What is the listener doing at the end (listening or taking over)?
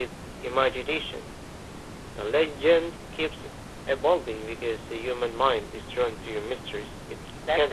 taking over